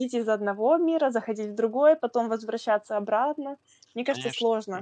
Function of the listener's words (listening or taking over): taking over